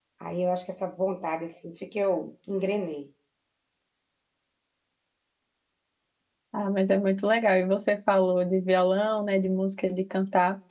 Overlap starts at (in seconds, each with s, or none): none